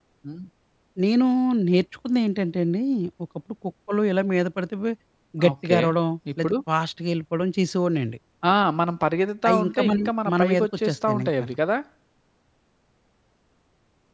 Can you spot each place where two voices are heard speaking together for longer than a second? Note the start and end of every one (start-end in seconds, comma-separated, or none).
9.5-11.6